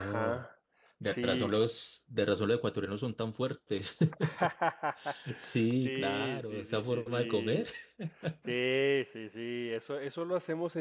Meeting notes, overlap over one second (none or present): present